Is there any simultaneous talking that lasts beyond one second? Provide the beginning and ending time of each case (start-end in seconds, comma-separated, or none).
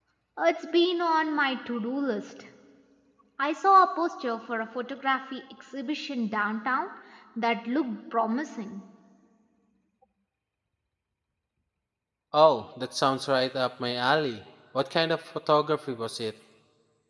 none